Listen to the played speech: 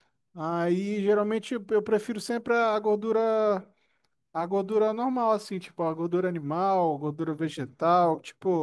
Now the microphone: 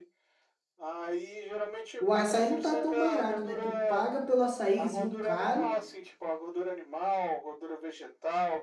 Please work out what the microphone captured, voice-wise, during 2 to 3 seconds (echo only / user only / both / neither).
both